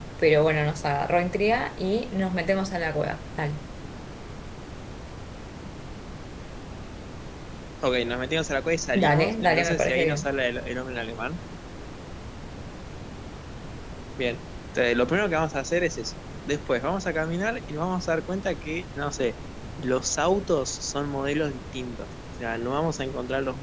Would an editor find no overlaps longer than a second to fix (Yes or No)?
No